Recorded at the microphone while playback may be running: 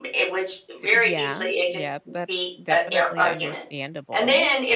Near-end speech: present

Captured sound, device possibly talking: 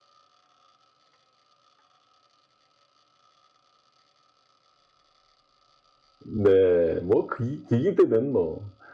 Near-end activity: present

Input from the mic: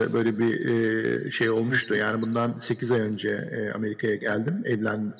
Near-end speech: present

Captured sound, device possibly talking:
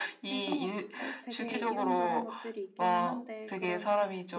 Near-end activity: present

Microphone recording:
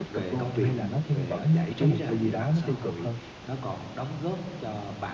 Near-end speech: present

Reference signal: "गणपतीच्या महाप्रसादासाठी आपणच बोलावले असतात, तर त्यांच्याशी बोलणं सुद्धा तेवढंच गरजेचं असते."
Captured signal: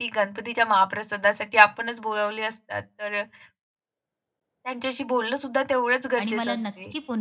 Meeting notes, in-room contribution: present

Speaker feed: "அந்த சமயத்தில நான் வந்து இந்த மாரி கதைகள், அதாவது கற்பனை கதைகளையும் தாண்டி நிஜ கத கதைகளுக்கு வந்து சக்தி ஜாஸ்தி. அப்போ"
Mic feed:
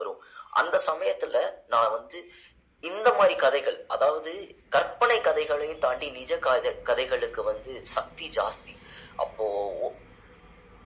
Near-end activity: none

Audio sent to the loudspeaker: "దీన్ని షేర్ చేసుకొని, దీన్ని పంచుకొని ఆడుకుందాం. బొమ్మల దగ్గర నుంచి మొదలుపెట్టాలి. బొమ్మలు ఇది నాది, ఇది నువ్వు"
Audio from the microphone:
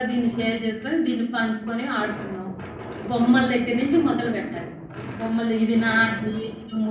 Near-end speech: none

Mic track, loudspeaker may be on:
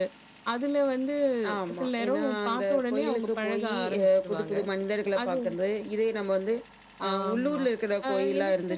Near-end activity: none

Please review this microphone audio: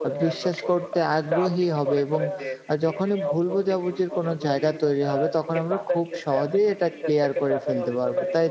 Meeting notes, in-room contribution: present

